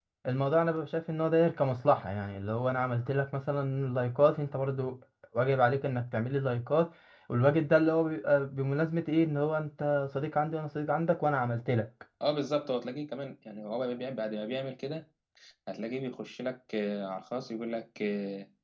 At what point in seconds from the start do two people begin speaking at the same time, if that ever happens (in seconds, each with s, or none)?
none